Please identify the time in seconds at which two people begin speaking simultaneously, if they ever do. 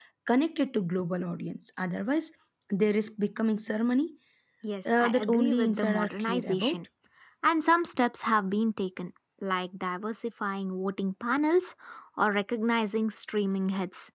5.0 s

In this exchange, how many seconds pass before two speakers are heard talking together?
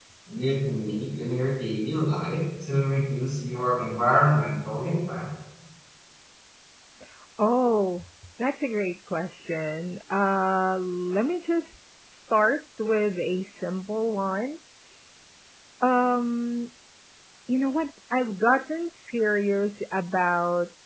none

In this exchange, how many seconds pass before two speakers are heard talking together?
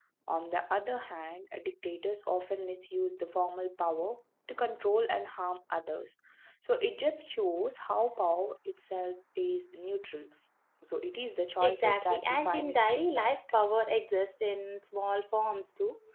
11.6 s

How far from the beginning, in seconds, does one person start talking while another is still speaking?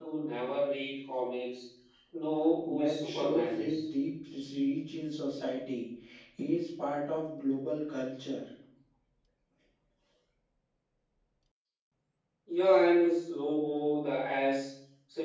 2.6 s

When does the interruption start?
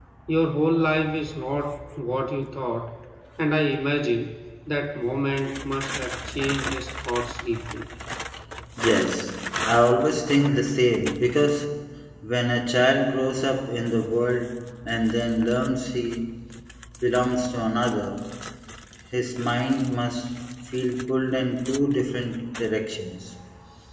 none

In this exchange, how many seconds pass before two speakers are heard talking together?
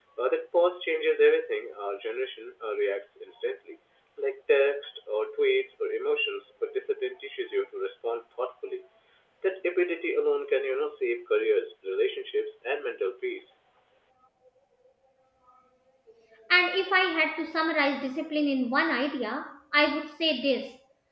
none

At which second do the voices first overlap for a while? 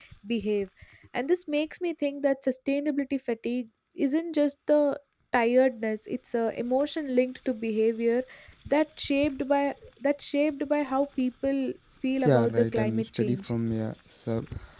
12.2 s

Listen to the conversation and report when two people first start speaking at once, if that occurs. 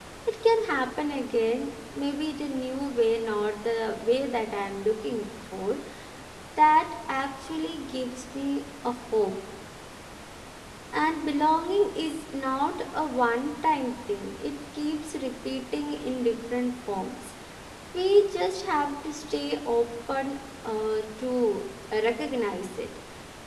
none

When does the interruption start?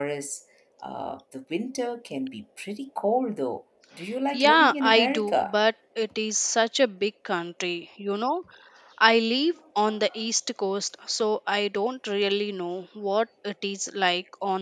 4.3 s

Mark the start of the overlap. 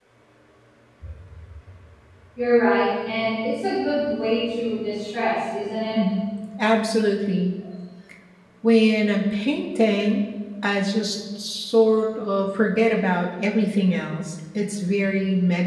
none

